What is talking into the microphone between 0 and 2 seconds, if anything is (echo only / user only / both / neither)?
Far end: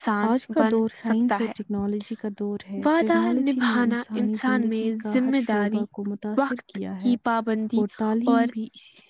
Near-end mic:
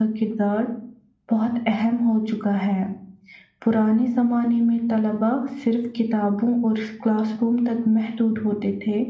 user only